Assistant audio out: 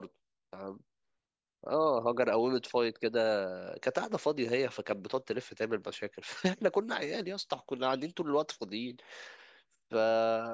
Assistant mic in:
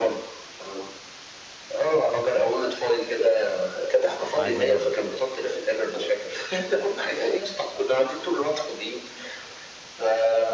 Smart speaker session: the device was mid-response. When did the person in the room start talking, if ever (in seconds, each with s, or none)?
4.3 s